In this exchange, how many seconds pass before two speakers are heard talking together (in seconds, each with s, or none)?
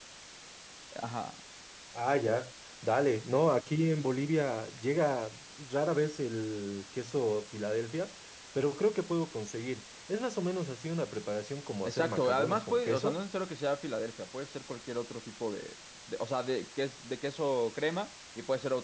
11.8 s